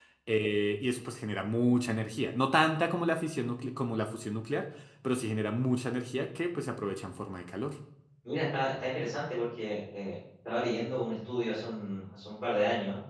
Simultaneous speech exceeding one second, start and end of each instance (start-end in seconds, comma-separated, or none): none